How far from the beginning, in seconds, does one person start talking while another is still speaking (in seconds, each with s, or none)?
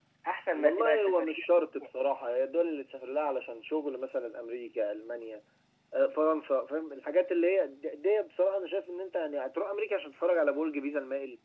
0.5 s